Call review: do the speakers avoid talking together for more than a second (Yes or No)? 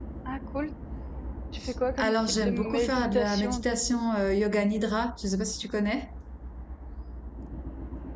No